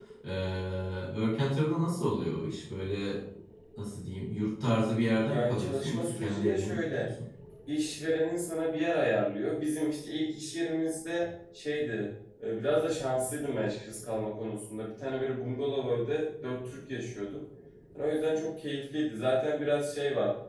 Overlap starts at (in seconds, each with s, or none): 5.2 s